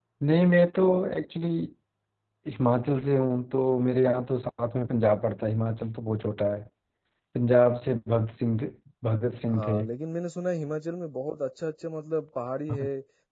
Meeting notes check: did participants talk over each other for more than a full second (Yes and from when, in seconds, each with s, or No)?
No